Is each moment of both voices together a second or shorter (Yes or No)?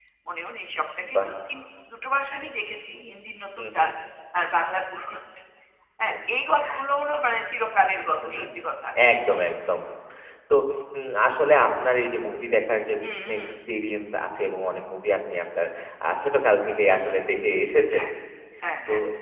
Yes